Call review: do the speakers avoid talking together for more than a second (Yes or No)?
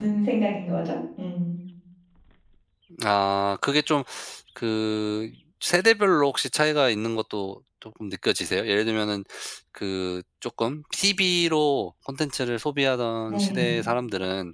Yes